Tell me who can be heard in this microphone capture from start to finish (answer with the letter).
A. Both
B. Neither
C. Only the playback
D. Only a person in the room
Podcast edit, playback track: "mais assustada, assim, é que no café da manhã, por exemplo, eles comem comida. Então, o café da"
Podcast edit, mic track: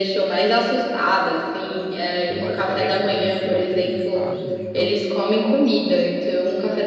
A